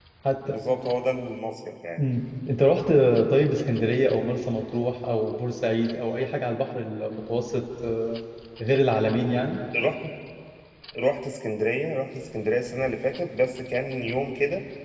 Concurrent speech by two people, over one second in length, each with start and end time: none

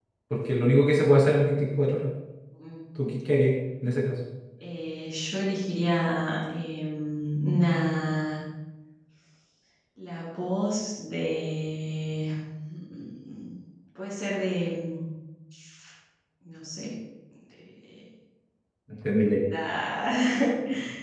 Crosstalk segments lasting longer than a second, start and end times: none

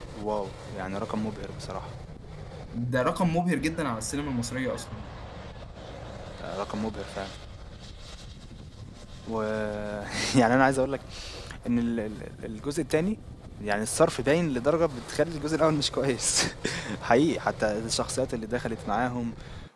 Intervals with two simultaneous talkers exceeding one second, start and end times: none

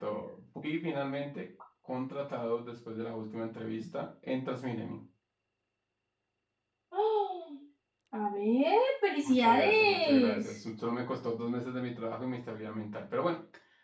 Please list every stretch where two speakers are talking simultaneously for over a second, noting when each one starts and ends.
9.2-10.6

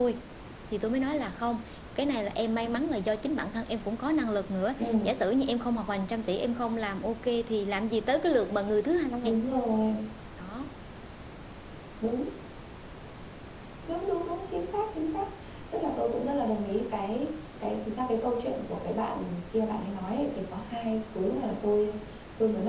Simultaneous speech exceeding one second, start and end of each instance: none

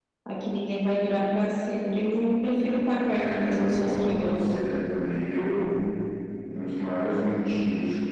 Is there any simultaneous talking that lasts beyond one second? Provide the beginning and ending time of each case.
3.1-4.5

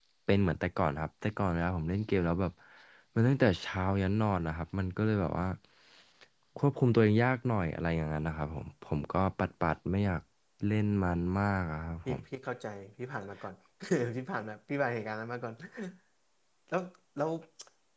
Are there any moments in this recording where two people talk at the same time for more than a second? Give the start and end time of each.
none

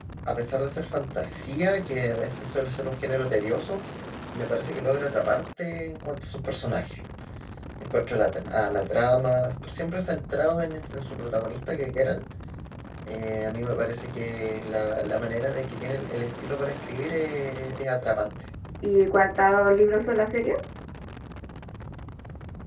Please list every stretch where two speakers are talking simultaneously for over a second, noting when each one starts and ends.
none

